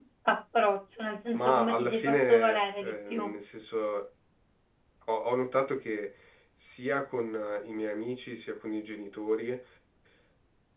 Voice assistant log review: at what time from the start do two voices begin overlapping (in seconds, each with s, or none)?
1.3 s